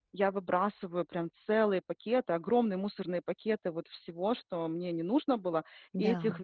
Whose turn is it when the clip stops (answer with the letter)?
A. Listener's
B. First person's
B